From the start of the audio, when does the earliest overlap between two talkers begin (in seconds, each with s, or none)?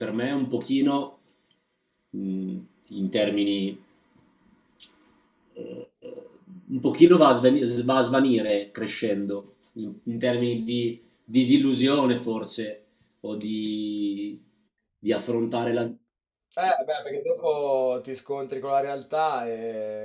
none